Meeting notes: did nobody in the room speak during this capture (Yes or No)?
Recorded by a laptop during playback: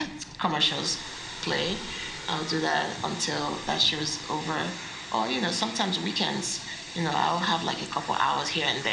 Yes